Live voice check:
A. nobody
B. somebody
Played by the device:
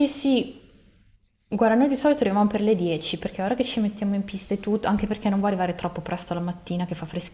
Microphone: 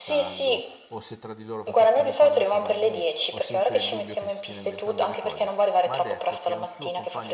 B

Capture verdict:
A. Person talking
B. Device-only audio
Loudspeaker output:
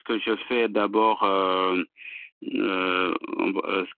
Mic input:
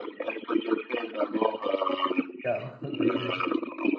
A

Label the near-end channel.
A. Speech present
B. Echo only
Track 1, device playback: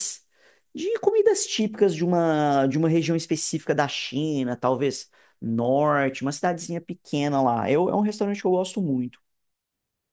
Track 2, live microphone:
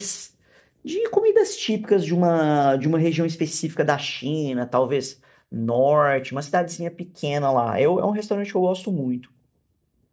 B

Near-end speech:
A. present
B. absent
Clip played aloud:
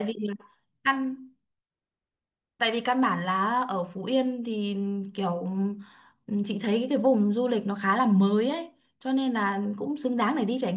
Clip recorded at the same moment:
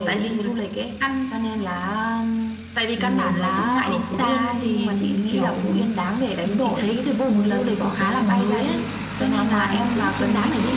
A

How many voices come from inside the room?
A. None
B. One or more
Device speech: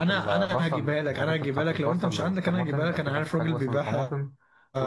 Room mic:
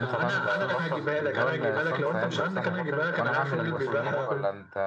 B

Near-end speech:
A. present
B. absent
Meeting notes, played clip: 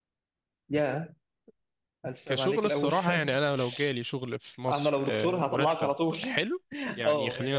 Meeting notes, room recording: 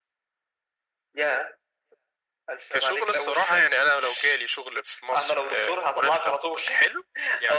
B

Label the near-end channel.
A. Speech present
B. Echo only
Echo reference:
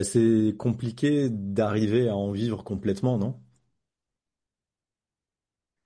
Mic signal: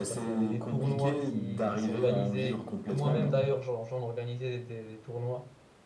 A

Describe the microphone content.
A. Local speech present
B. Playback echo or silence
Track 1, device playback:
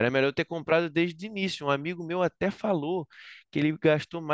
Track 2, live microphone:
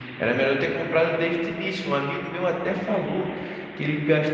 B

